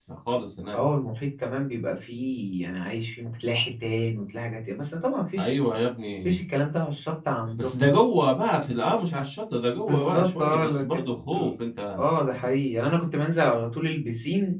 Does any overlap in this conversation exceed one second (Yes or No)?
Yes